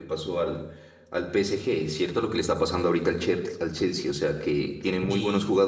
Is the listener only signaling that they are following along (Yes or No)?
Yes